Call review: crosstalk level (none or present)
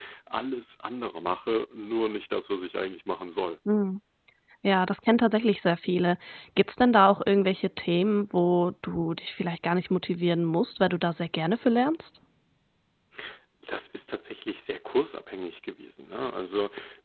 none